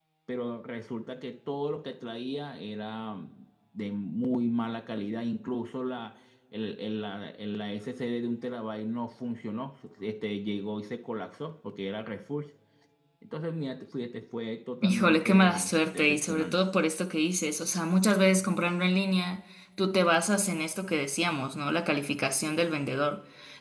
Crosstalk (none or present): present